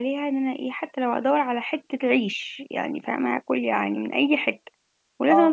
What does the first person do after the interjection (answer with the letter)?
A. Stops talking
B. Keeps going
B